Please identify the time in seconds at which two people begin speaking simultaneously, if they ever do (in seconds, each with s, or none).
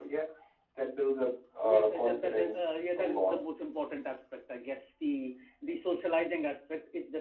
1.6 s